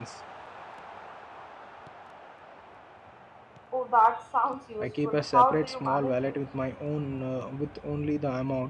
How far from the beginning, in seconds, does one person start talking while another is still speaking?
5 s

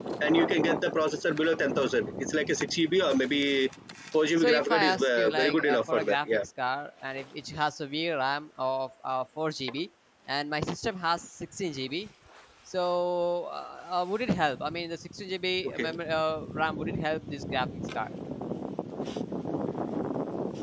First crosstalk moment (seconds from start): 4 s

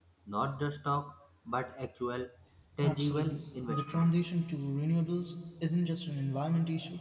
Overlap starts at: 3 s

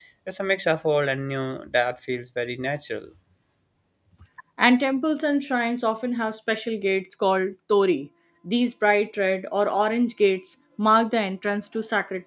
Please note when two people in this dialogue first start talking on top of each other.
none

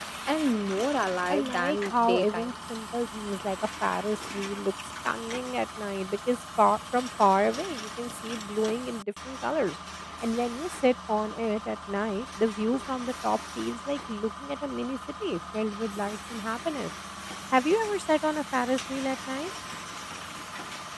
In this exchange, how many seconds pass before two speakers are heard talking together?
1 s

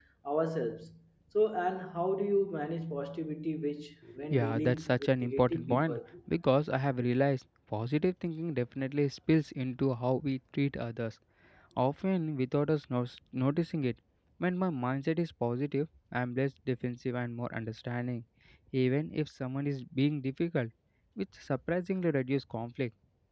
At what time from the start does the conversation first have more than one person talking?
4 s

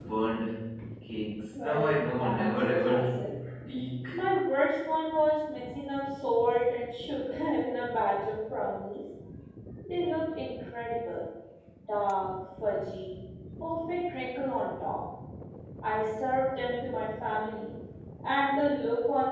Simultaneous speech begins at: 2 s

